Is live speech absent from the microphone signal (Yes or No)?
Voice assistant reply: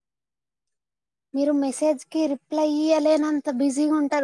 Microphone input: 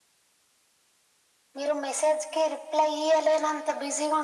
Yes